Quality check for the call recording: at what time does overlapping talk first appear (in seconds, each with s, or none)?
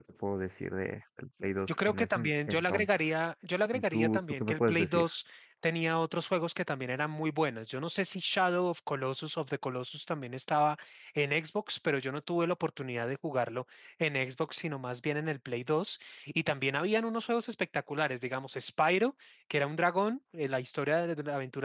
1.7 s